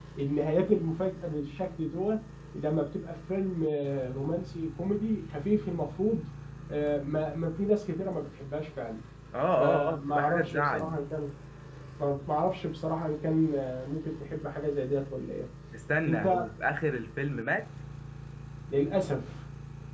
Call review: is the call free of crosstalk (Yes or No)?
No